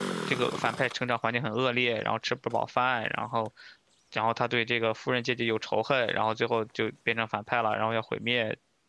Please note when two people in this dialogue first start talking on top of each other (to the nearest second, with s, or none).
none